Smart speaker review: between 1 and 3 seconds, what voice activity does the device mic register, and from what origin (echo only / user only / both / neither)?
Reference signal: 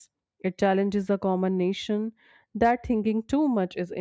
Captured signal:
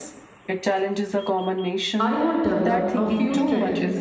both